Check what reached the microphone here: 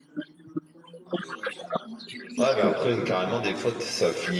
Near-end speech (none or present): present